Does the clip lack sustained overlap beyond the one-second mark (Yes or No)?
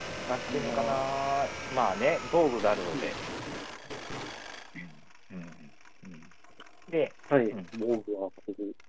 Yes